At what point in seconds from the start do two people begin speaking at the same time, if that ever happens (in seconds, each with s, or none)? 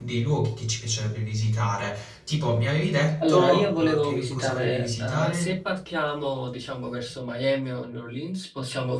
3.2 s